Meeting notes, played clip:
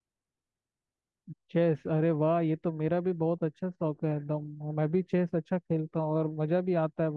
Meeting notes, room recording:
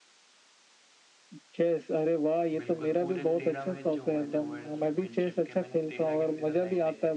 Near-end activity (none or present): present